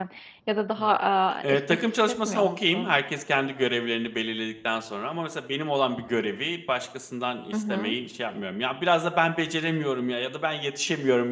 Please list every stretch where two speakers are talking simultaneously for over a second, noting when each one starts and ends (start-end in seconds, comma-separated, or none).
1.4-2.9